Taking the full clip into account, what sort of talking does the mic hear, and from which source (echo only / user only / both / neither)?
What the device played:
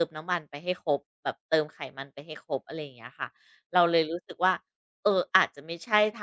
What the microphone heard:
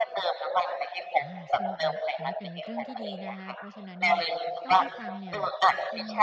both